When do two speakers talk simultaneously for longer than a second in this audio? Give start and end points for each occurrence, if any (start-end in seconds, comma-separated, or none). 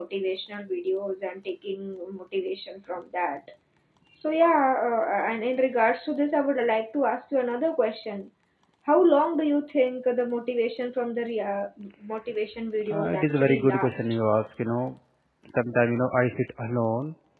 12.9-14.2